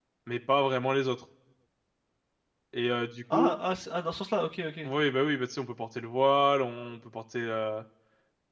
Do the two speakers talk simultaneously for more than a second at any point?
No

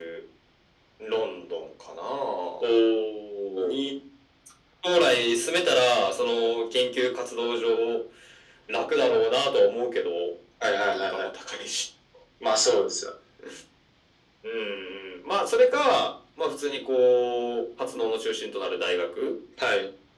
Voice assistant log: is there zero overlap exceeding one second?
Yes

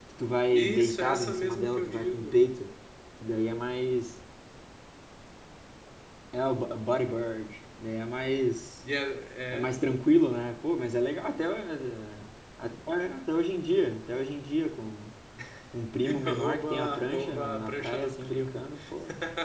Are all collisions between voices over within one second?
No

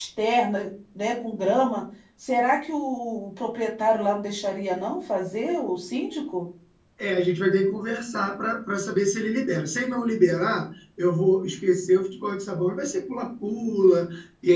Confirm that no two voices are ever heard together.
Yes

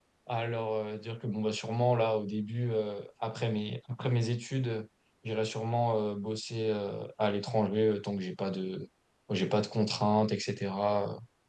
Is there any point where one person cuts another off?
No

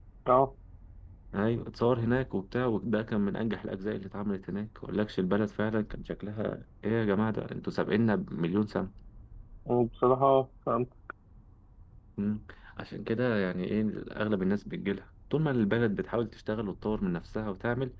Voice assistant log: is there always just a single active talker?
Yes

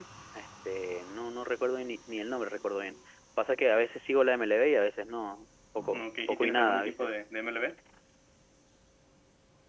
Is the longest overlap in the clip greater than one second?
Yes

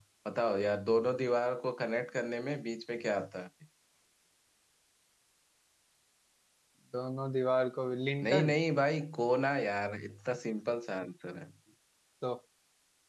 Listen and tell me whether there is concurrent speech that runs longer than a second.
No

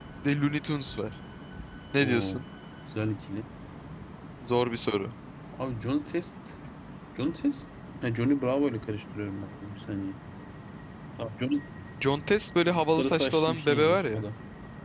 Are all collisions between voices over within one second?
No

